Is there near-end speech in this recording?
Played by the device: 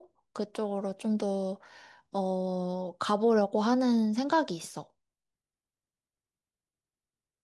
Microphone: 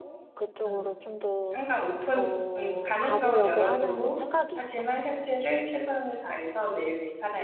Yes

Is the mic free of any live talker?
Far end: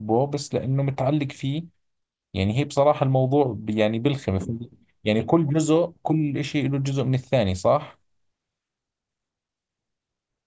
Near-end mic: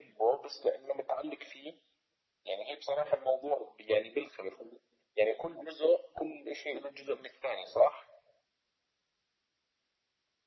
Yes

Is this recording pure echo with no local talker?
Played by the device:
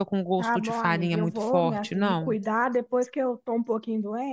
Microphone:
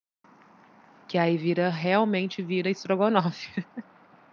No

